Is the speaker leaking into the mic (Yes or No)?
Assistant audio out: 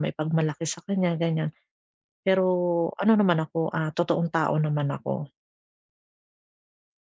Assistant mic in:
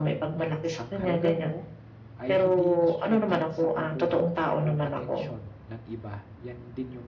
Yes